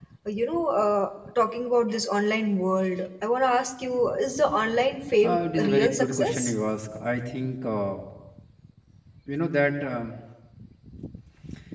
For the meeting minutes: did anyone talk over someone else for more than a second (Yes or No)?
Yes